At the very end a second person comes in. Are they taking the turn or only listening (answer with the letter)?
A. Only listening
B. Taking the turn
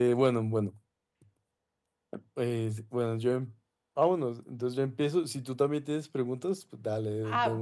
B